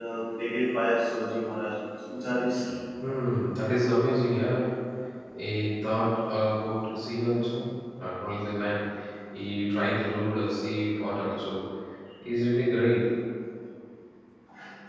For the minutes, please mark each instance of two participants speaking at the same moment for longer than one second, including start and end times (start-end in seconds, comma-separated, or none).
none